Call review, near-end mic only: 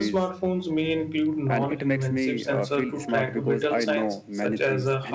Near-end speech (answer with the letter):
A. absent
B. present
B